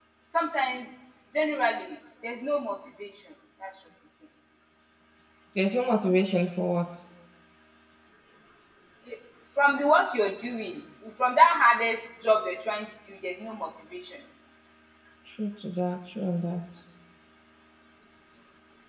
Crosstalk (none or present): none